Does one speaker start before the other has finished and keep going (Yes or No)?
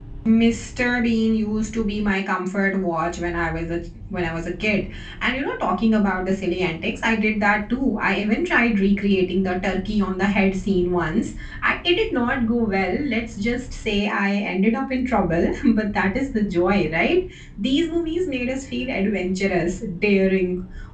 No